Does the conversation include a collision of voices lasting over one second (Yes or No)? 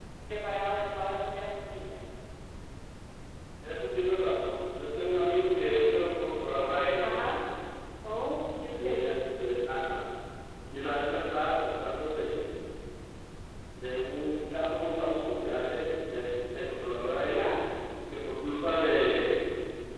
No